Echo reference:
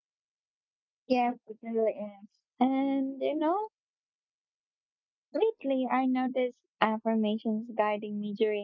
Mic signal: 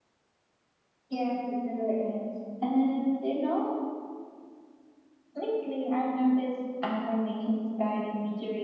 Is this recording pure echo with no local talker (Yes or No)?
Yes